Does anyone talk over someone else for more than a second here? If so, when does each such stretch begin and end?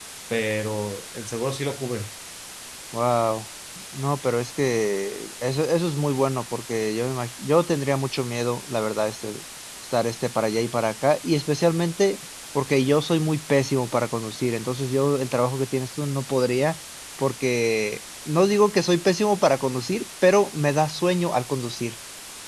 none

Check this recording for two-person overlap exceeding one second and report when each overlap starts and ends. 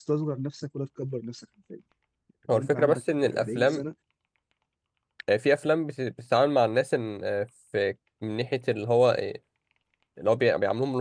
2.5-3.8

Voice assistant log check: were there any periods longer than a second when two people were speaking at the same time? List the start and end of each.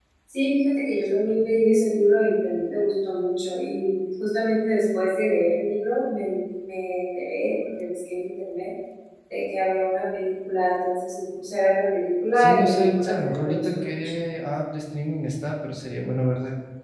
12.4-14.0

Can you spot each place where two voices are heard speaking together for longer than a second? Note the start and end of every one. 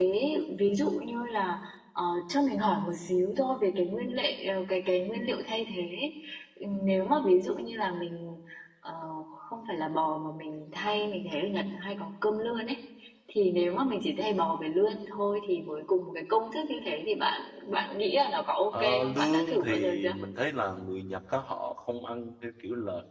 18.8-20.1

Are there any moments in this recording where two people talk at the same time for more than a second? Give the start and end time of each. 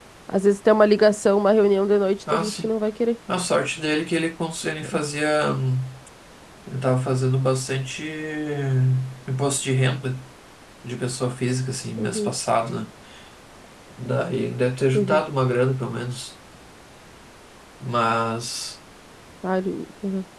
none

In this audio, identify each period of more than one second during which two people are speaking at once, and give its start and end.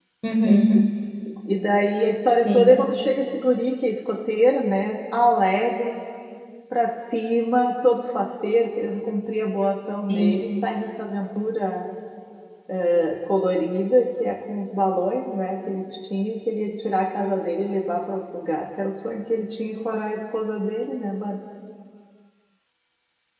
none

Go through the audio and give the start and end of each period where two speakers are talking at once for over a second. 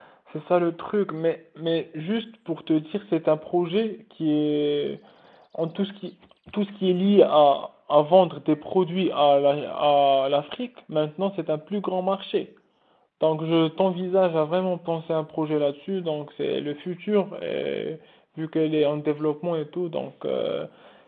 none

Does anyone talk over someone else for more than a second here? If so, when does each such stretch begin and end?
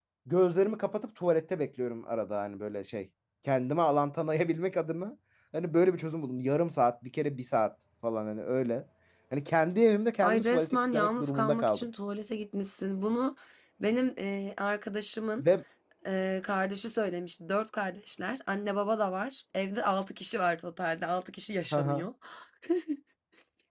10.2-11.9

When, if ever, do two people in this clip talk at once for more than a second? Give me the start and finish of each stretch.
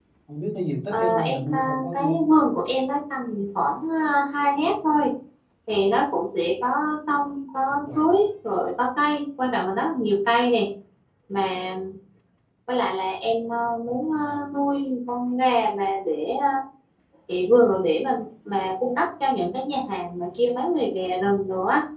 0.9-2.2

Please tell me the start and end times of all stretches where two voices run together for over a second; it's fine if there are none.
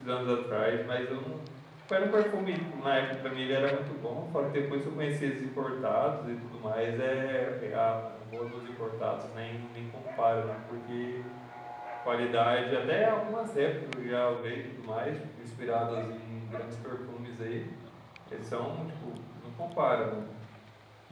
none

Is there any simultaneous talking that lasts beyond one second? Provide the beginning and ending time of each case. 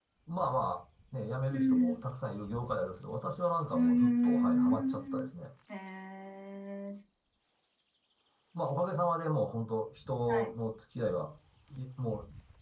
3.7-5.3

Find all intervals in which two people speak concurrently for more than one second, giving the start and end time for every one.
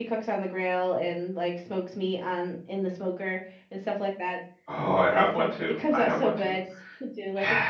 5.1-6.5

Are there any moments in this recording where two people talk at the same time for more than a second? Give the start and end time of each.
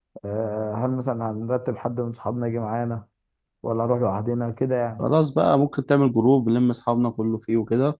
none

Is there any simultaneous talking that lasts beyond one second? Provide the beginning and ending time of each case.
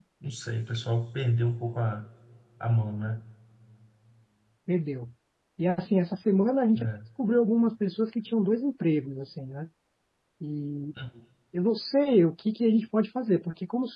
none

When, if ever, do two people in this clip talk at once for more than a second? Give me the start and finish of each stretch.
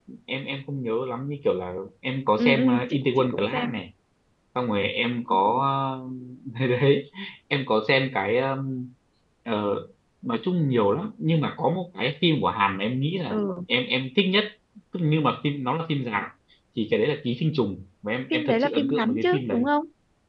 2.4-3.7, 18.3-19.6

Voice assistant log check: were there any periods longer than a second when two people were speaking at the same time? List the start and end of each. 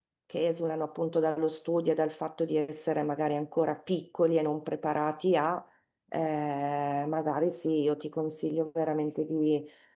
none

